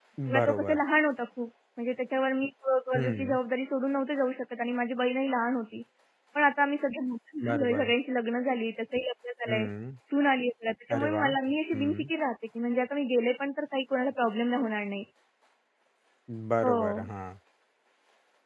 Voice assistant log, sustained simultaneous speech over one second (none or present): none